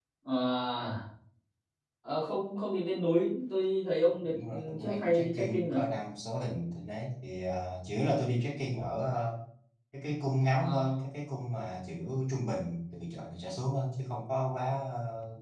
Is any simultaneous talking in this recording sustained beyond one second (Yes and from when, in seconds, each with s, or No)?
Yes, from 4.1 s